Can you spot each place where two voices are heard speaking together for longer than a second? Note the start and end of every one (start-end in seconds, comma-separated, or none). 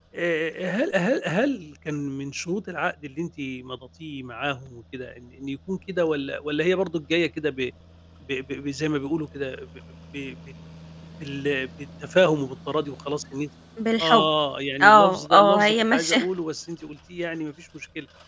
14.8-16.2